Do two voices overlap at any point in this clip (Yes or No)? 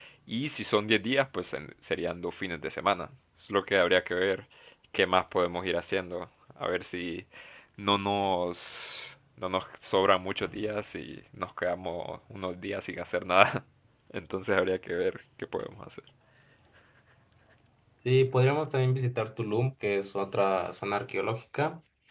No